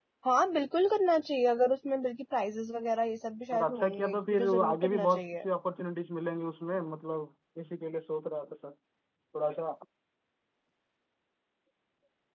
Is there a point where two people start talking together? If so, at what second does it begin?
3.5 s

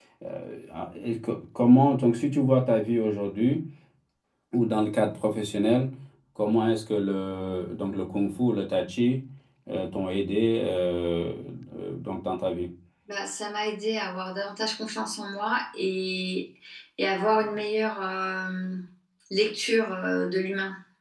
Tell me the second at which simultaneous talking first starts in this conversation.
none

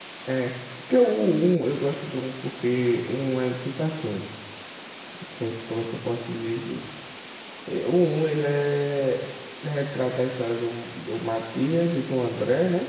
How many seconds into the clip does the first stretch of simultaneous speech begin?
none

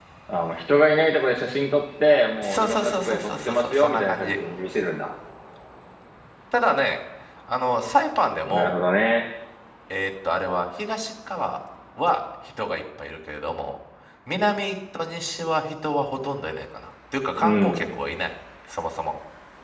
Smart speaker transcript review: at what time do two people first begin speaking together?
2.4 s

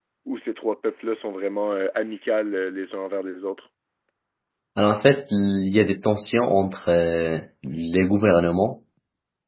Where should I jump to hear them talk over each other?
none

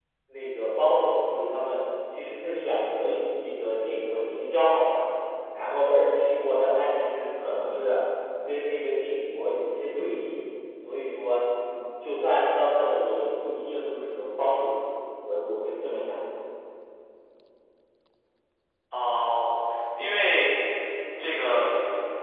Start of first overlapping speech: none

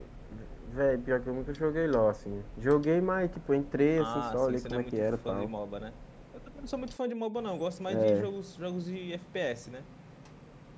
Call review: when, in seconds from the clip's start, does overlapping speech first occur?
4.0 s

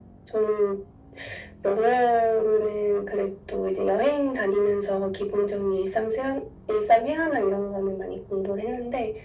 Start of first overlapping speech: none

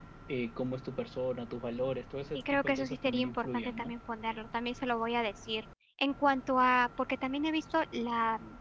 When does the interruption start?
2.3 s

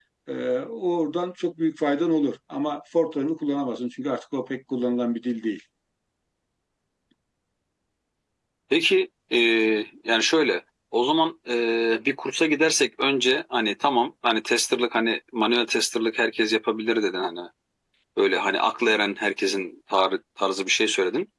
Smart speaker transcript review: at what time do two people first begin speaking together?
none

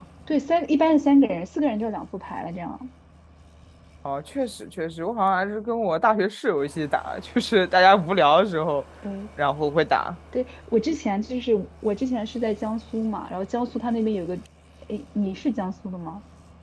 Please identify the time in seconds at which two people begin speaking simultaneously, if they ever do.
none

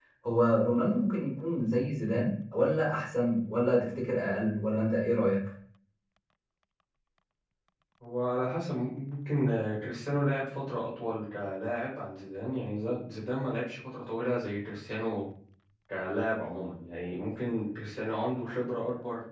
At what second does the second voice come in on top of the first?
none

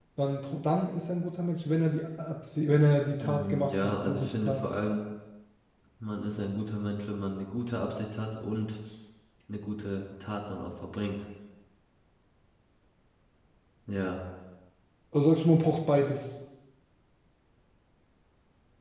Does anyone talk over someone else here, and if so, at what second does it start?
3.2 s

